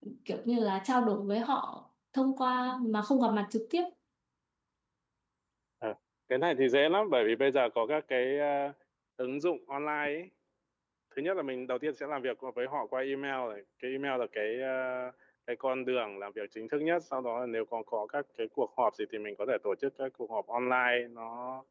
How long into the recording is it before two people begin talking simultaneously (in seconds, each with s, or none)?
none